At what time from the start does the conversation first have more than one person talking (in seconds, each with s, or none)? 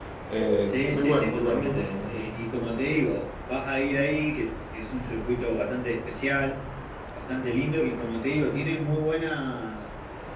0.7 s